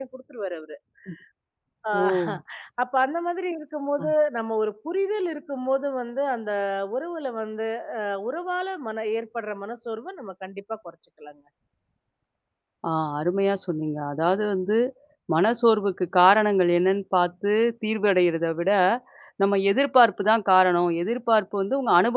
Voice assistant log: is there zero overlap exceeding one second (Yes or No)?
Yes